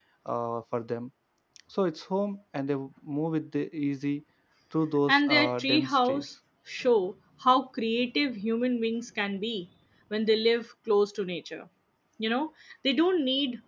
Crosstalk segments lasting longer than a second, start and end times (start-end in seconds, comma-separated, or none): 5.1-6.3